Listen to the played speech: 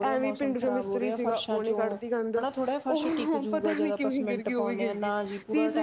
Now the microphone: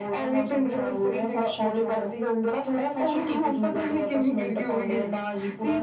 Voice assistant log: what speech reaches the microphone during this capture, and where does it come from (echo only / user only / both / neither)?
echo only